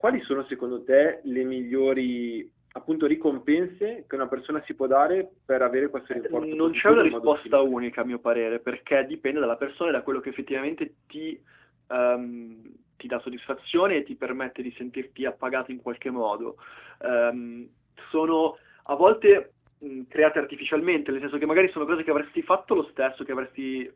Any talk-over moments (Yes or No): Yes